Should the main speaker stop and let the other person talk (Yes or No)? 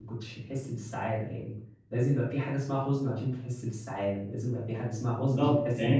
Yes